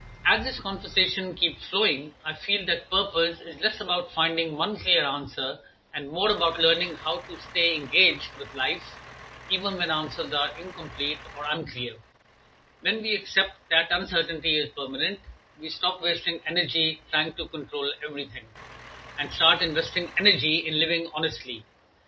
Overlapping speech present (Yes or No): No